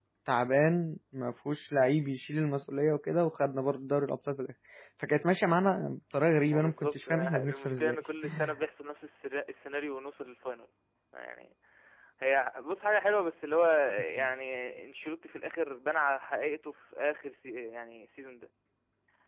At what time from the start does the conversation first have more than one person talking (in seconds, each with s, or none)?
6.4 s